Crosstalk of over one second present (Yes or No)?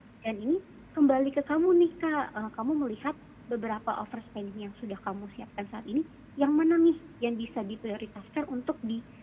No